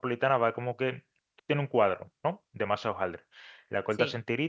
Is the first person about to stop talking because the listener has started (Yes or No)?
No